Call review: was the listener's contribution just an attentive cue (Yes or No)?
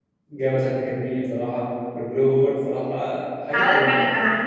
No